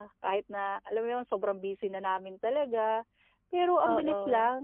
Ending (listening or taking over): listening